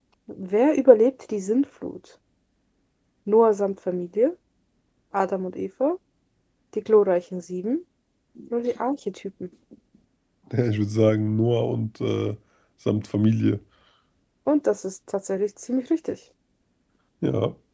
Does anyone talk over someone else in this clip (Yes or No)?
No